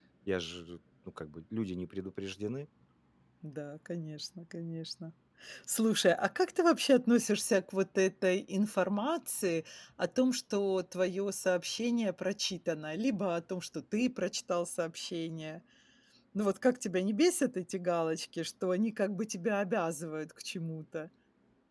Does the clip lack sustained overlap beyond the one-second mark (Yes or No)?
Yes